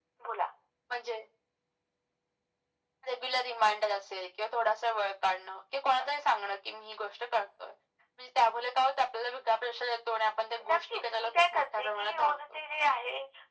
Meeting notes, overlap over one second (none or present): present